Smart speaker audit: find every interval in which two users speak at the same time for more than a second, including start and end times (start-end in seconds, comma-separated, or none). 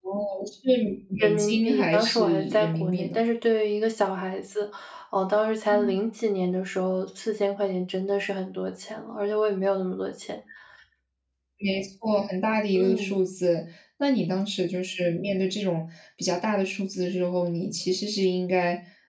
1.2-3.2